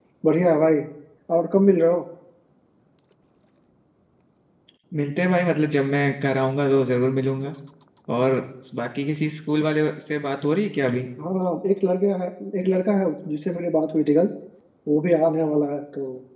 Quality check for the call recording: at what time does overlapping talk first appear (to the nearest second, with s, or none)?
none